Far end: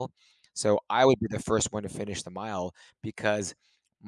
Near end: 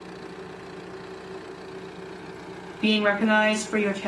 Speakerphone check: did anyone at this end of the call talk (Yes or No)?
Yes